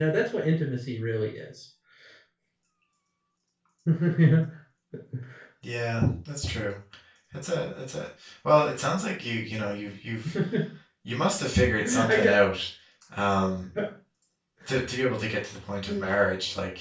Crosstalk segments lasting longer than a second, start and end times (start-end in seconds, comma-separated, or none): none